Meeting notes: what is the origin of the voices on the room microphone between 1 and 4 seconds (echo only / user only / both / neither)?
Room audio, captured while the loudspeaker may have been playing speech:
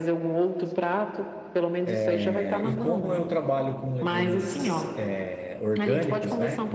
both